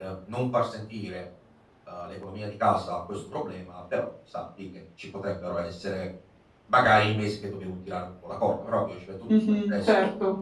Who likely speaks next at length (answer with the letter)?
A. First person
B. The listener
B